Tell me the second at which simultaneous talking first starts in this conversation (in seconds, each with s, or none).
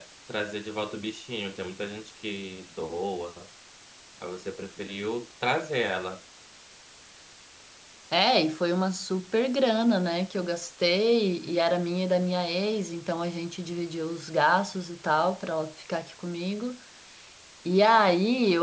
none